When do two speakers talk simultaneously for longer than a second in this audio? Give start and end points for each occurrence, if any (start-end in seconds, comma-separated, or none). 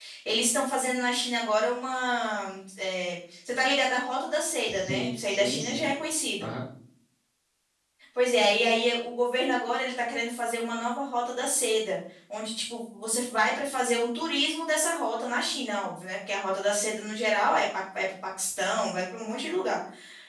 4.7-5.9